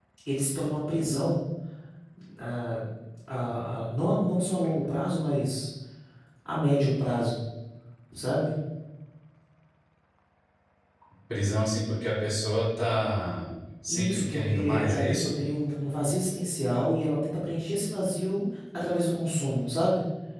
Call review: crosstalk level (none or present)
present